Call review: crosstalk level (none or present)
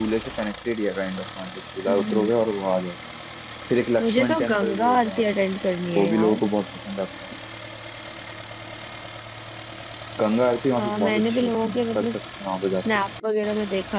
present